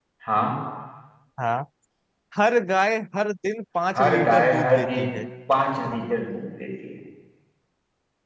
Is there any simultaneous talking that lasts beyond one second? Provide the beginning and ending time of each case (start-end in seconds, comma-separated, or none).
3.9-5.2